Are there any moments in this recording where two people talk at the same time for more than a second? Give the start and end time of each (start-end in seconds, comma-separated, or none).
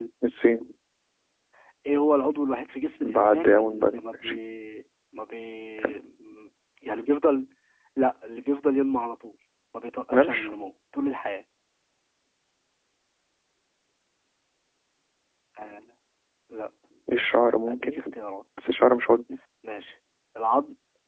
3.0-4.4